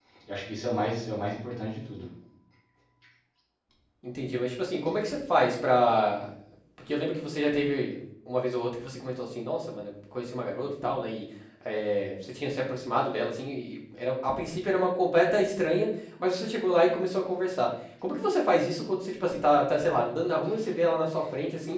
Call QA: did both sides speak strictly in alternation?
Yes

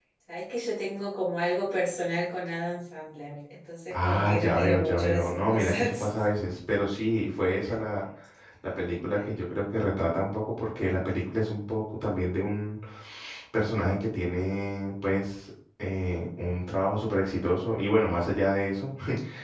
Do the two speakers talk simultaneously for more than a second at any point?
Yes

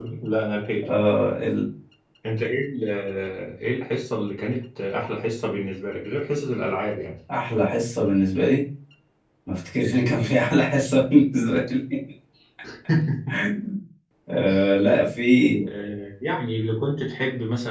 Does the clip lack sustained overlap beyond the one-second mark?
Yes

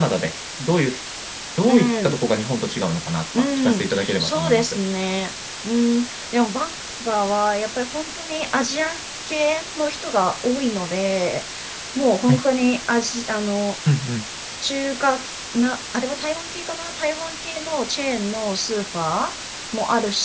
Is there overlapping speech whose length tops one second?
Yes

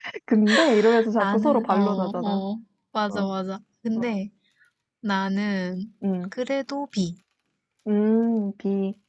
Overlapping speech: Yes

